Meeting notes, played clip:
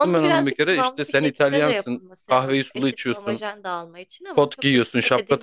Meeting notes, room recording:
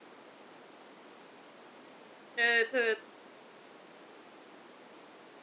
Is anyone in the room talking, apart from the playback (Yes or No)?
Yes